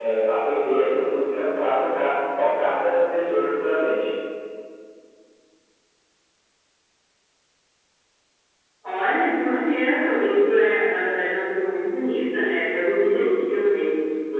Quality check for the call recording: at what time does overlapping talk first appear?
none

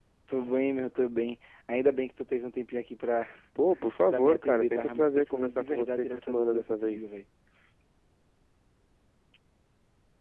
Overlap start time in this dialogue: 4 s

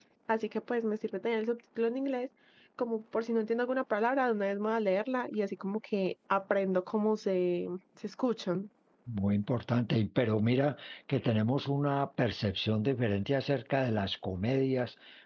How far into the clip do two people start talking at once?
none

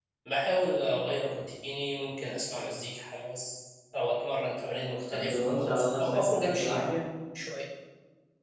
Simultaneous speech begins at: 5 s

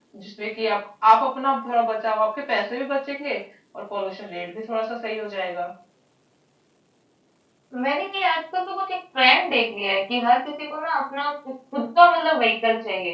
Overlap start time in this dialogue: none

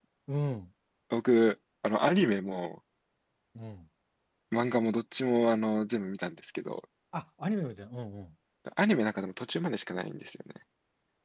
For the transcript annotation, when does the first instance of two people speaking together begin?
none

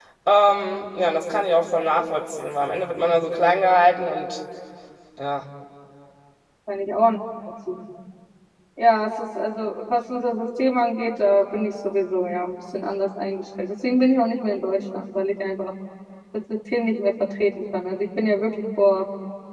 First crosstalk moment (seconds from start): none

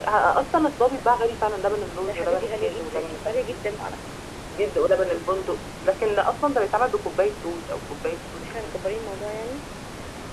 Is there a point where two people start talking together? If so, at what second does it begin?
2 s

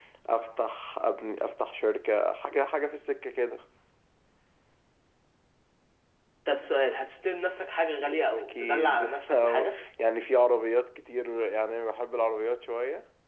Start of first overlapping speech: 8 s

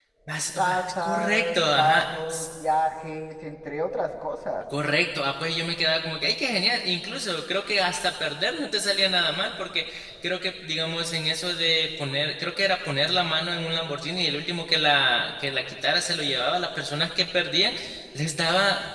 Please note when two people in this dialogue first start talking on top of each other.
1 s

